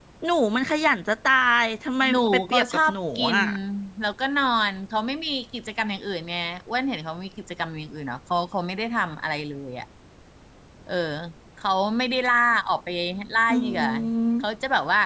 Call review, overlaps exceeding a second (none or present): present